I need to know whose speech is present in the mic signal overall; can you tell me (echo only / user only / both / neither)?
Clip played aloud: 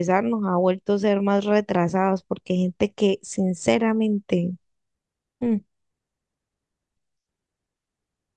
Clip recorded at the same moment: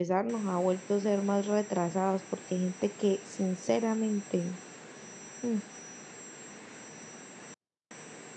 echo only